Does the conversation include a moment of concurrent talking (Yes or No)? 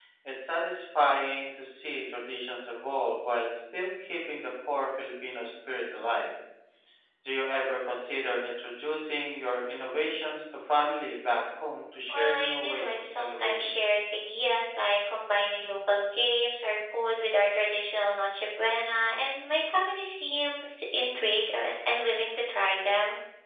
Yes